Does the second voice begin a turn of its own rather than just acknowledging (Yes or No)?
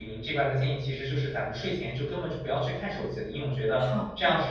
No